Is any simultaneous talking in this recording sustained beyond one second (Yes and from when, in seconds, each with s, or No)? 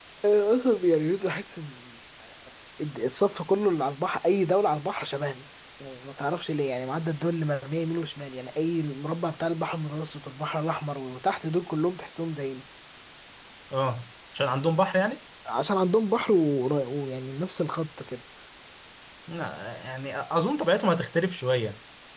No